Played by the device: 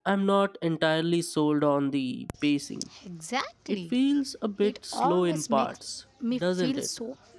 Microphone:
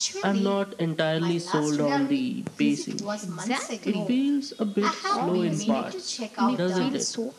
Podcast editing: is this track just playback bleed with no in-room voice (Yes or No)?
No